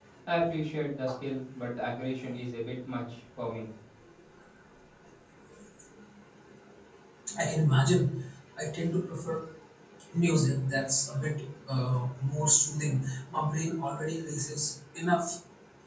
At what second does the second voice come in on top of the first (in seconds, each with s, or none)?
none